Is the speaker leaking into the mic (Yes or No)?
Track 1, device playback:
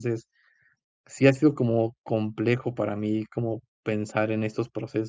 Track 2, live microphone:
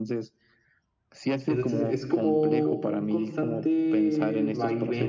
Yes